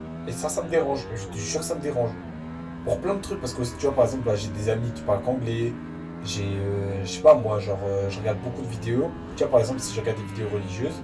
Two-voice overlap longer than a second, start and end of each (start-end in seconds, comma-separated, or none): none